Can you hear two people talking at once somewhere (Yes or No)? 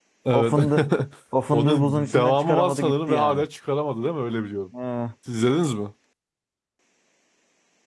Yes